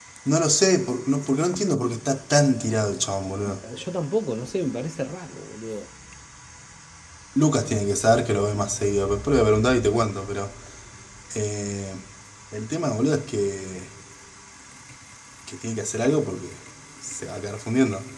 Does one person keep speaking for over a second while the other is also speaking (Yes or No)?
No